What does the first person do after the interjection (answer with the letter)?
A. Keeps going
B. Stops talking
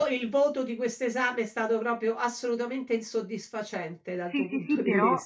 B